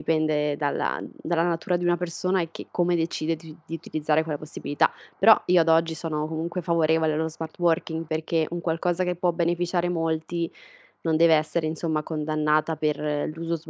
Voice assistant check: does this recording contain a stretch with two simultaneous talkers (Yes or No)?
No